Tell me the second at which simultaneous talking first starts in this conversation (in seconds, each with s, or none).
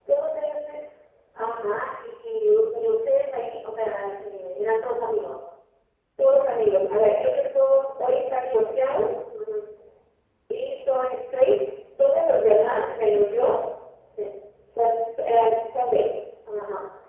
none